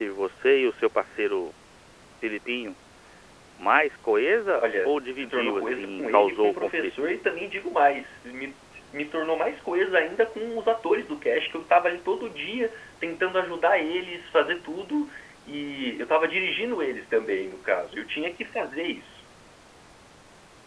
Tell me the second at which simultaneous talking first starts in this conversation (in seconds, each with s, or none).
4.6 s